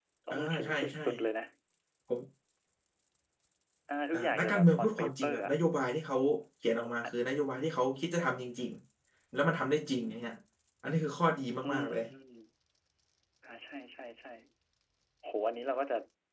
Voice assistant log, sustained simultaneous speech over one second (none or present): present